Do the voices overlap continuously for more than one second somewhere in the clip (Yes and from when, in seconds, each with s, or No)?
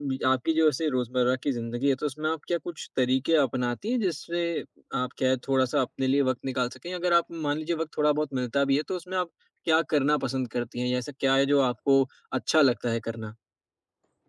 No